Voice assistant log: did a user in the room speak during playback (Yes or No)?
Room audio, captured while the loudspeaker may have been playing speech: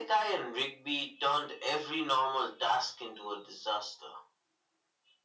No